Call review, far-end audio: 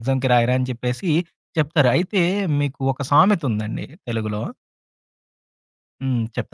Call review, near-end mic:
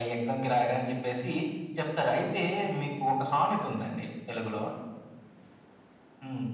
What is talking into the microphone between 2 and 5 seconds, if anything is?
echo only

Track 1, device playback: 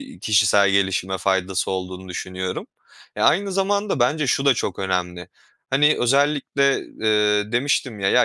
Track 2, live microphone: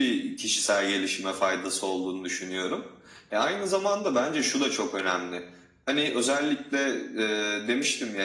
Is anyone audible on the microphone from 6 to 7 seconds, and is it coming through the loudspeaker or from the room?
echo only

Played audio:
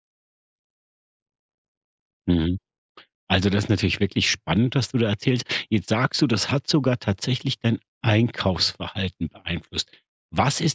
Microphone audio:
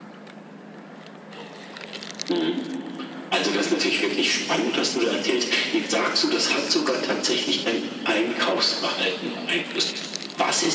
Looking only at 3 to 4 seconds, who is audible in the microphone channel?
echo only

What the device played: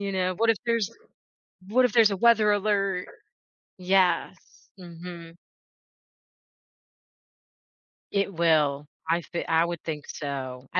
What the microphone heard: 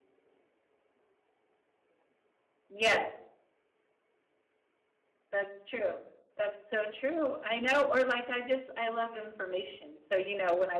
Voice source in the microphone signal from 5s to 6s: user only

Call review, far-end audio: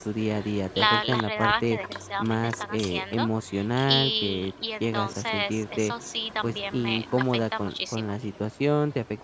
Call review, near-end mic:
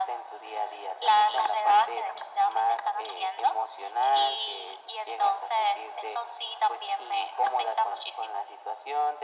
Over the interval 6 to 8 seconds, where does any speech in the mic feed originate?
echo only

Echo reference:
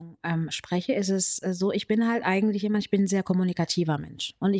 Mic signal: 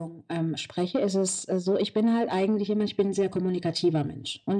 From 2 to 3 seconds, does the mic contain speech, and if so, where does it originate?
echo only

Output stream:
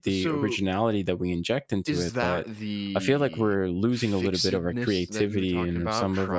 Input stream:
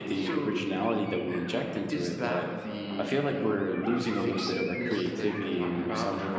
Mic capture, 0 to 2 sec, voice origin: echo only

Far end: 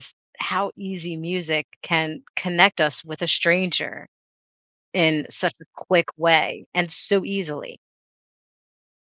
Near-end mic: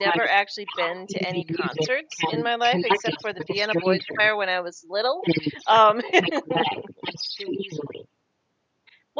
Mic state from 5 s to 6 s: both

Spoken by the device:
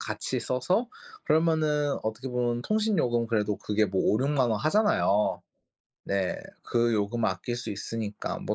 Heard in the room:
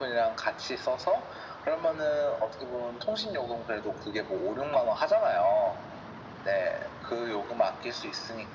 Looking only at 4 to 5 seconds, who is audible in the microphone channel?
echo only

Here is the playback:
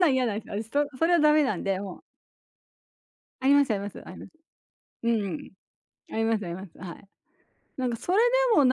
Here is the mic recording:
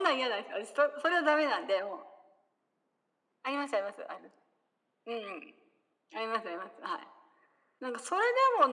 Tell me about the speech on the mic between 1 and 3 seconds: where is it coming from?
echo only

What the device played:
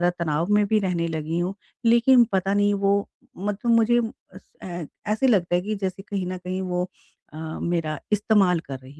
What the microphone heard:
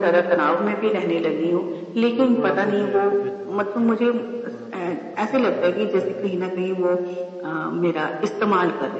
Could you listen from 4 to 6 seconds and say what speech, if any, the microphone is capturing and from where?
both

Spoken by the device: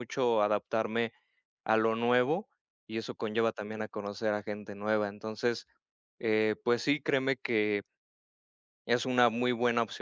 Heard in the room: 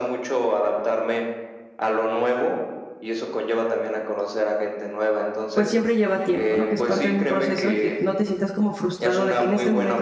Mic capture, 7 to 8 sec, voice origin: both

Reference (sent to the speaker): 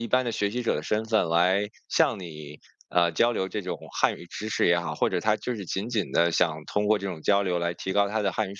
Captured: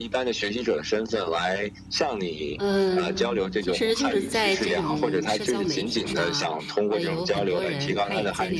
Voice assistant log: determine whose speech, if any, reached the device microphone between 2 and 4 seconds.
both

